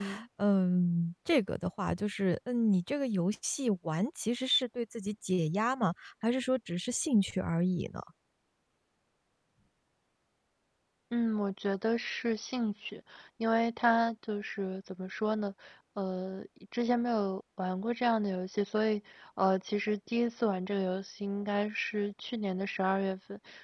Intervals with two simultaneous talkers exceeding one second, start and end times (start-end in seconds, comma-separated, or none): none